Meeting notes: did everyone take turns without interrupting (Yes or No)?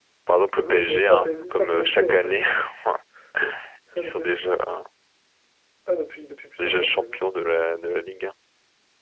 No